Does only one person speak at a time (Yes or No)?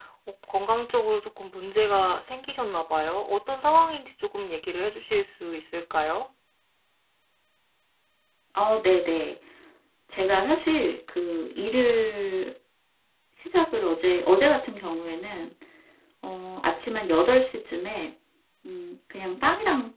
Yes